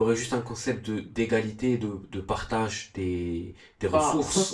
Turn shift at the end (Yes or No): Yes